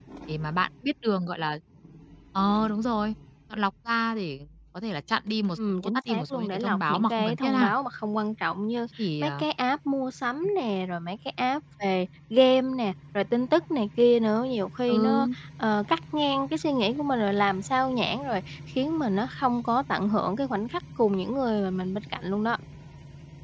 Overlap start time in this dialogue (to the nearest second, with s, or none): 6 s